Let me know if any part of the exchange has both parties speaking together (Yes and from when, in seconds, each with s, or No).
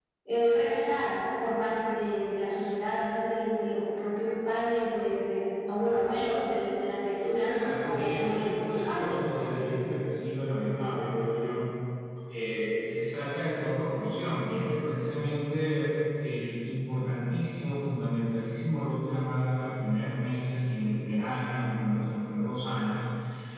Yes, from 7.5 s